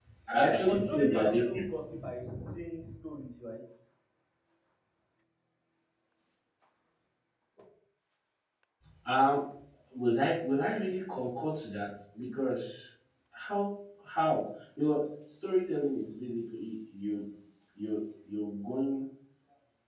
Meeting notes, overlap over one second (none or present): present